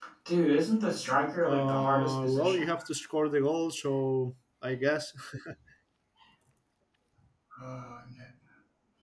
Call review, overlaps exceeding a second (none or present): present